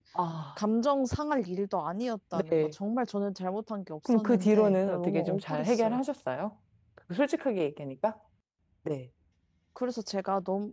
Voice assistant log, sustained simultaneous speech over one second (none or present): present